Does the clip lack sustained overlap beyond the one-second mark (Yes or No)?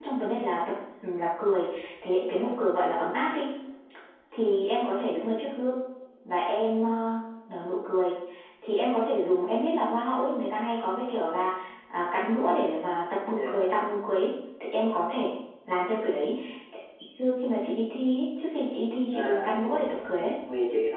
No